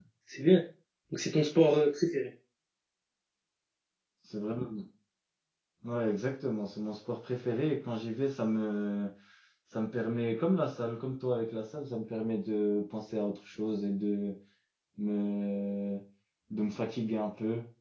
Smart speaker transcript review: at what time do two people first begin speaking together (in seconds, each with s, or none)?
none